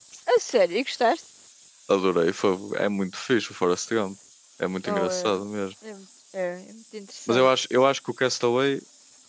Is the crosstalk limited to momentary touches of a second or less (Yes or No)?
Yes